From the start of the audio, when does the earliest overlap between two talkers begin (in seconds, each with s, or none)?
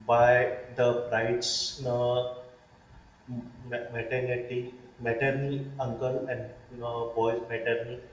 none